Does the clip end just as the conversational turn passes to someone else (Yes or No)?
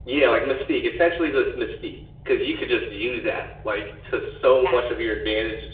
No